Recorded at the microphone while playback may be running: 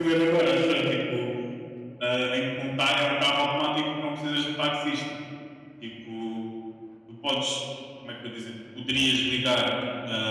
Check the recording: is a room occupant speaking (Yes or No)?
Yes